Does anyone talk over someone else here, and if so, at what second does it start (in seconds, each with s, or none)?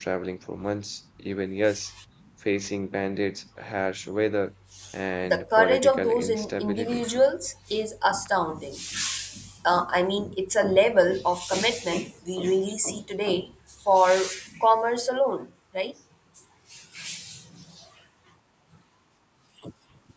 5.2 s